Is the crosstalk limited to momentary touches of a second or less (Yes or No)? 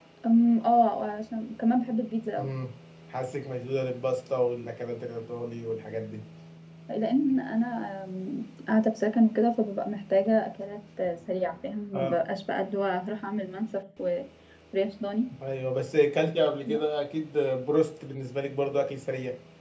Yes